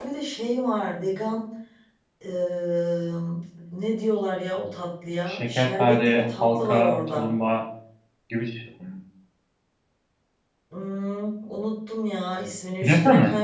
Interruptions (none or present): present